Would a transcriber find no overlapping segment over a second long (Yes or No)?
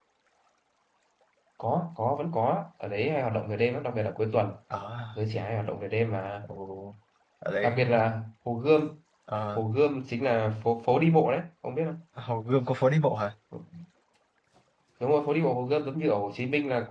Yes